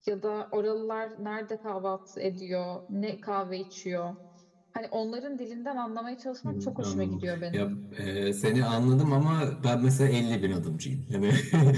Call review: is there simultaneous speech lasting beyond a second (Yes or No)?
Yes